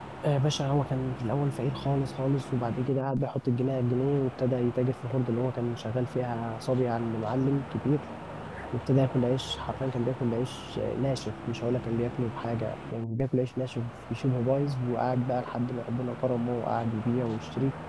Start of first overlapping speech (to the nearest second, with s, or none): none